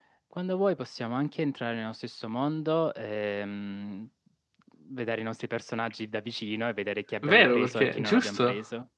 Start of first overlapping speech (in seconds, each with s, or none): 7.2 s